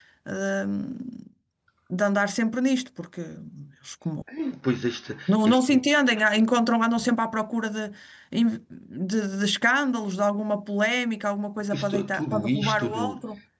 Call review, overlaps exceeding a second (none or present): present